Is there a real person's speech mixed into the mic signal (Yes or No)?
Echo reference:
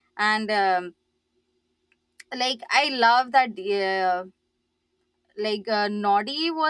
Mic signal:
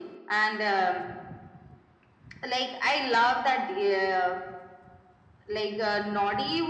No